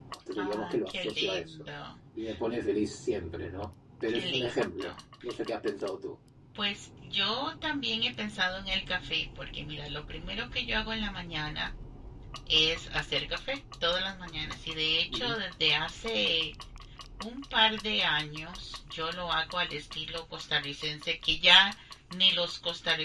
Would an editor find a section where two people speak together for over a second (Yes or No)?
Yes